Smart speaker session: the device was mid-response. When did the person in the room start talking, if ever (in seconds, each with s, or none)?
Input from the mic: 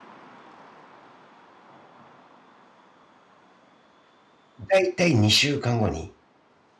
4.7 s